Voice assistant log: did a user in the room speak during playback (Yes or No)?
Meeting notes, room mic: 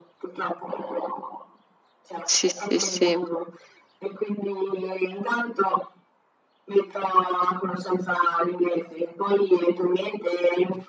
Yes